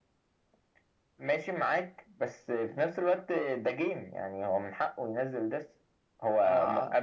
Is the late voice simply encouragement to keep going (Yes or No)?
Yes